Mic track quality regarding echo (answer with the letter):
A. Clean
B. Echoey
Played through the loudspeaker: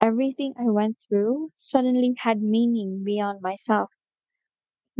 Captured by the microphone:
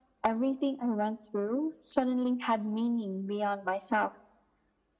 B